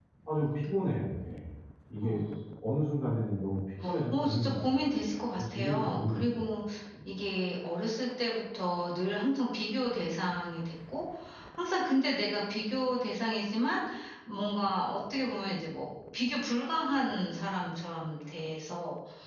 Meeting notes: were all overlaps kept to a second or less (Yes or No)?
No